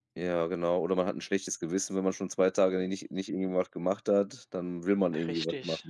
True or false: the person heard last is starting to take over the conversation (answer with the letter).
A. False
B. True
B